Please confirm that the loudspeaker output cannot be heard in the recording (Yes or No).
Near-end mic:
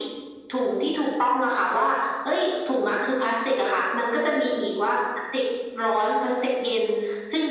No